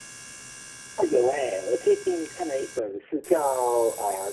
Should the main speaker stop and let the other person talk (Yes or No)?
No